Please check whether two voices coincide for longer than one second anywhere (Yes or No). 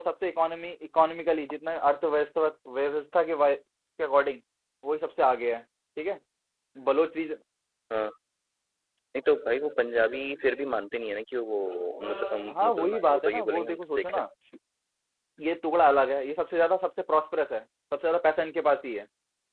Yes